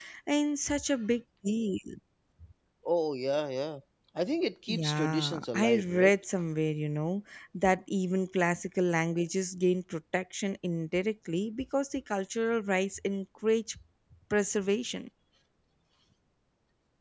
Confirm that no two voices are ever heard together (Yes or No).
No